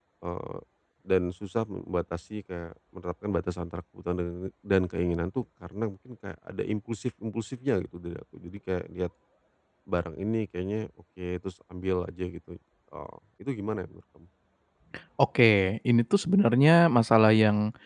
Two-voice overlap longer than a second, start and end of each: none

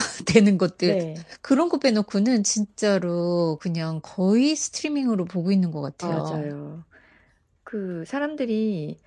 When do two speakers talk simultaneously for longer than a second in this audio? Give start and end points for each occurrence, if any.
none

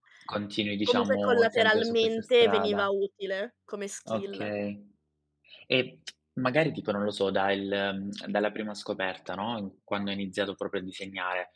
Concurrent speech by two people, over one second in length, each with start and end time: 0.9-2.9

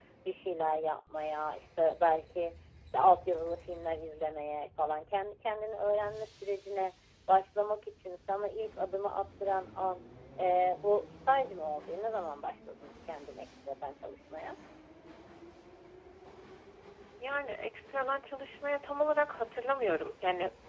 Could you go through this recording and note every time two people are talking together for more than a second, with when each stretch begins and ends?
none

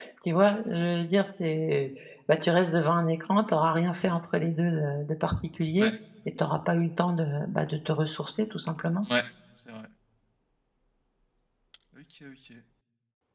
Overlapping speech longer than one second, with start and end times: none

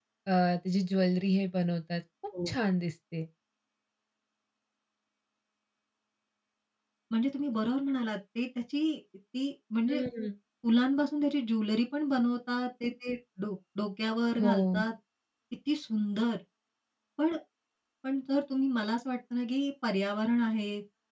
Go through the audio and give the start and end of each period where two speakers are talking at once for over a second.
none

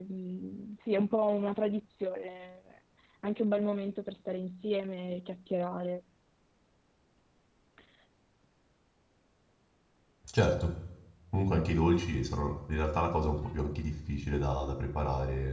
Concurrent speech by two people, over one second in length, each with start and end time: none

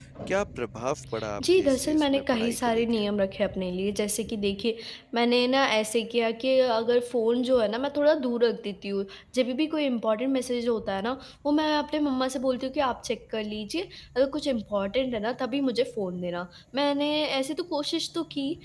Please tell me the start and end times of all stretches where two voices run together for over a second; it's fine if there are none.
1.4-3.0

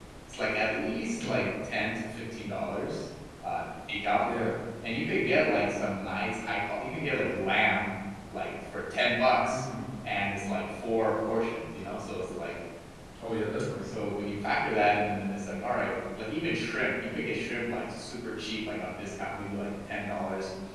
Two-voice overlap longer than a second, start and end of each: none

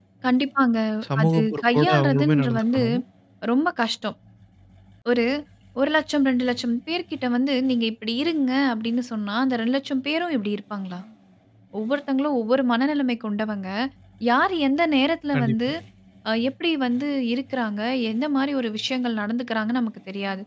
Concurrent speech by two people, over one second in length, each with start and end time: 1.2-2.8

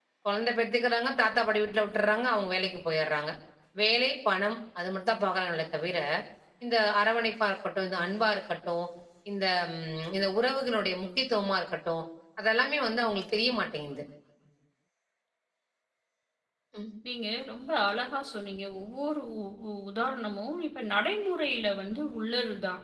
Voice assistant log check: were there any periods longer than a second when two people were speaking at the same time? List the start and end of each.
none

